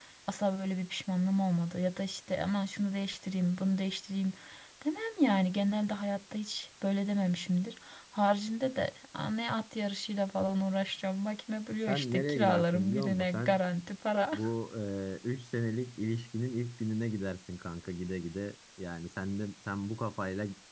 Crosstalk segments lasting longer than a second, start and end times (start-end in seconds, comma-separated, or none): 11.9-13.6